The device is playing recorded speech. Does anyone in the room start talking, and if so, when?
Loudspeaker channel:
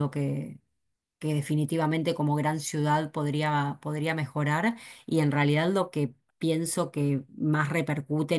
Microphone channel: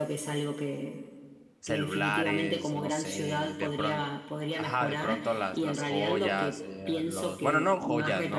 1.6 s

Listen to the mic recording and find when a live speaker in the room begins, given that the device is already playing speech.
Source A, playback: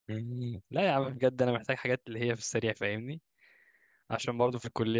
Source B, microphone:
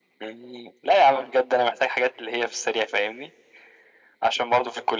none

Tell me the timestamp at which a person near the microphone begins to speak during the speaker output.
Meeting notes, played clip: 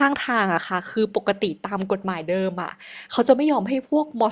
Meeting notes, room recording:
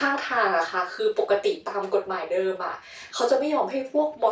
none

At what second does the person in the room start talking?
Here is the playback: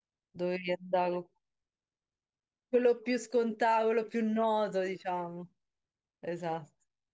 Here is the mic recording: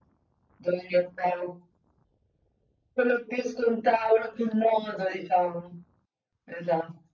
none

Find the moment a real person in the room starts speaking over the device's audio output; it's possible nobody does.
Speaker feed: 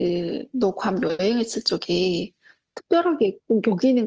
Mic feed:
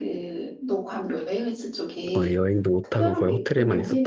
2.1 s

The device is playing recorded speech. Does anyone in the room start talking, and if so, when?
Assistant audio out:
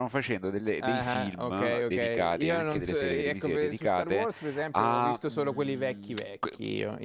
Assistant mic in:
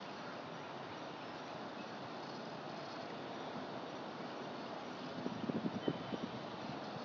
none

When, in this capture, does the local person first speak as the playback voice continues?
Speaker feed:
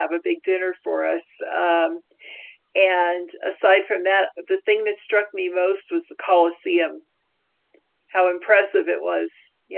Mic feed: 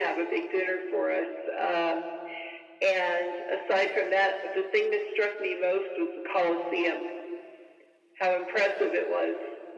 none

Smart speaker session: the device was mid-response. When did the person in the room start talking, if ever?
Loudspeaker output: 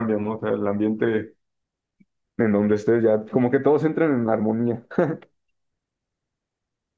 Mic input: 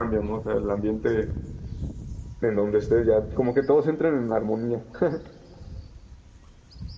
none

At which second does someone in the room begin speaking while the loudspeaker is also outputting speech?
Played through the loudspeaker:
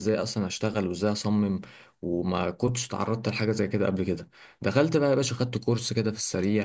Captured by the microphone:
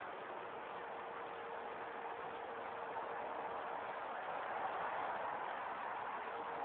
none

